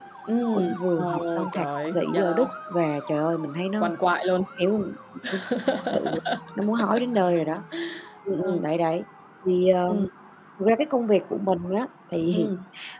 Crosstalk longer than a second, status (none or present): present